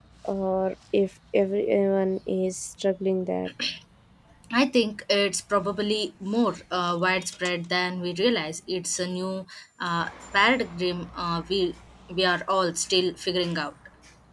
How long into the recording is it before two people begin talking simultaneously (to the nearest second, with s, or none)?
none